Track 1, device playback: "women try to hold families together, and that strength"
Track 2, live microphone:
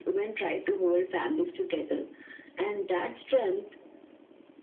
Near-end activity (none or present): none